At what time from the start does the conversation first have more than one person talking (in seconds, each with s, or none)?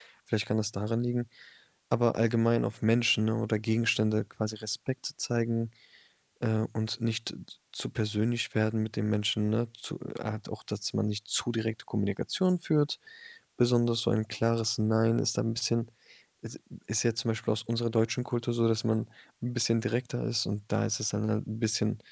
none